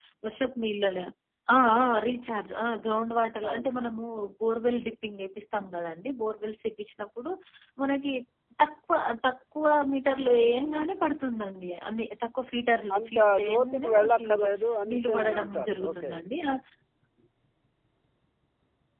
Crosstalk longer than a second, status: present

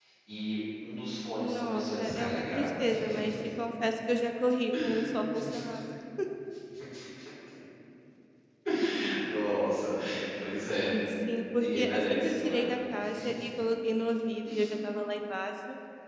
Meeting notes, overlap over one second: present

